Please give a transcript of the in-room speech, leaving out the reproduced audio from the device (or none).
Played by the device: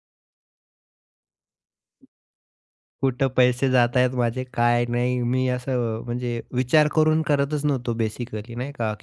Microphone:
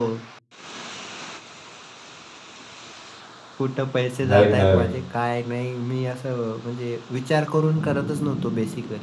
नवीन-नवीन.